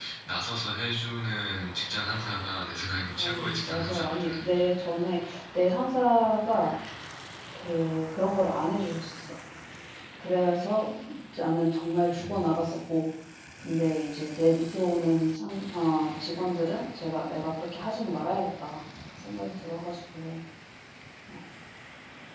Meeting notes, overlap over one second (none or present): present